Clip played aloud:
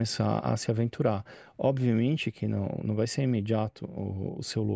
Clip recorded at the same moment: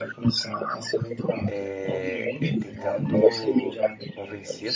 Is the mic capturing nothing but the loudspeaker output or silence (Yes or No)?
No